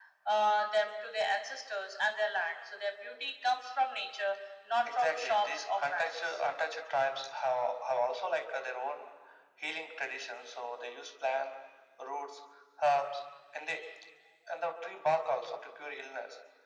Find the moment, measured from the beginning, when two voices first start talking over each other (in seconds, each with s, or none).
4.8 s